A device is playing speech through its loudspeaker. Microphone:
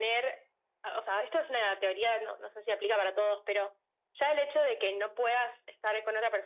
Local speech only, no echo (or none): none